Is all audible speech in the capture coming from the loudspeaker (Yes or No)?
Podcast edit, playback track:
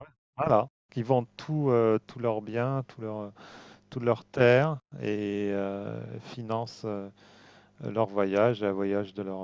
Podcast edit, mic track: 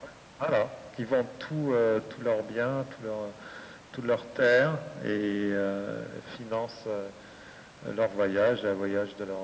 Yes